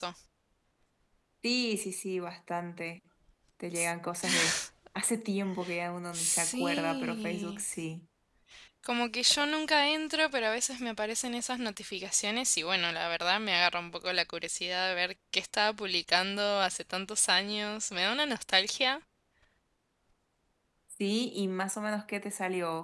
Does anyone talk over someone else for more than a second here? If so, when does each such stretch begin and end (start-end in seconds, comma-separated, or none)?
6.1-7.6